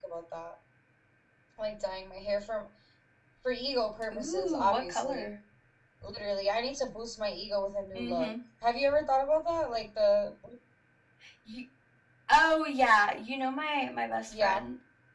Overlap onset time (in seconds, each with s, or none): 4.1 s